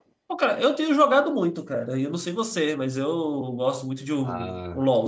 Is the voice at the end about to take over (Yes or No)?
No